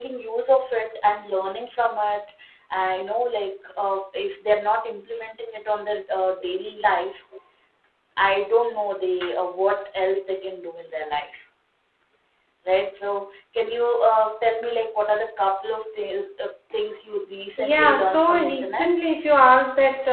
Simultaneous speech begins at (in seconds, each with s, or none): 17.6 s